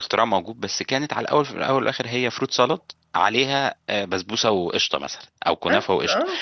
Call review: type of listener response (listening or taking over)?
listening